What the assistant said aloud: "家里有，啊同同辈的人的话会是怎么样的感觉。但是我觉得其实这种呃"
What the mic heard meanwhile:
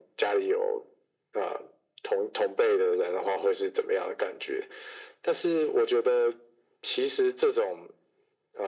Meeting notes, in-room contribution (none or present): none